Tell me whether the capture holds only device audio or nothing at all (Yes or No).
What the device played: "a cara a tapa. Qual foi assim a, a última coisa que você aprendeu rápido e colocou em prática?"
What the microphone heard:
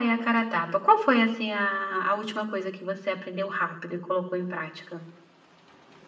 Yes